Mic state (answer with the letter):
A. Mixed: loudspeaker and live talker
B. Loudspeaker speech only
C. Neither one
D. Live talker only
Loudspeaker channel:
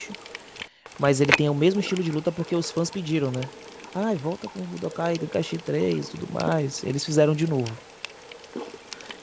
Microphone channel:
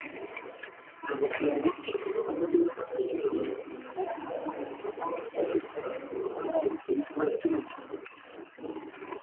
A